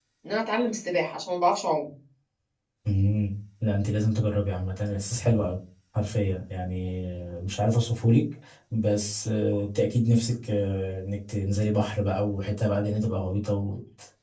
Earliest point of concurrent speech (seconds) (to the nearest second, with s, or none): none